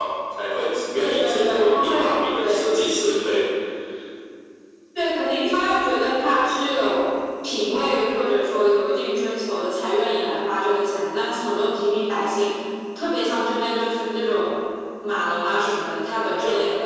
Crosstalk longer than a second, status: present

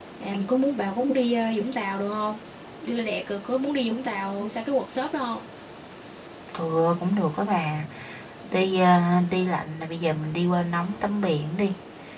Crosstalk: none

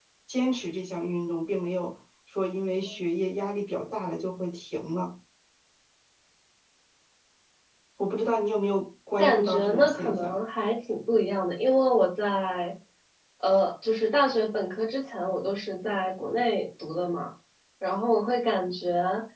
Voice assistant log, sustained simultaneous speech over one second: present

